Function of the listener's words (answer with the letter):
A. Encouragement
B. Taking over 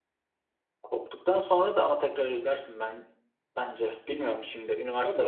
B